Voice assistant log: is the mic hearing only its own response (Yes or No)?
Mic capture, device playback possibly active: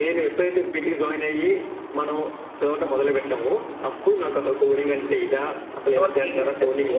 No